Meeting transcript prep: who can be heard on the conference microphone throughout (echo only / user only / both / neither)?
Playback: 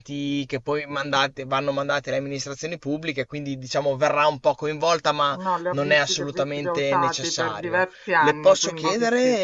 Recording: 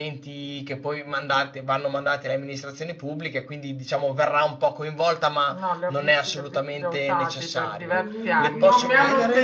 both